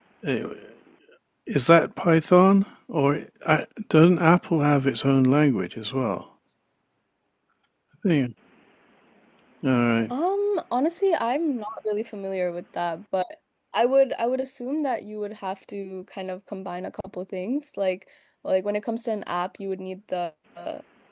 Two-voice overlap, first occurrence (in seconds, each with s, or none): none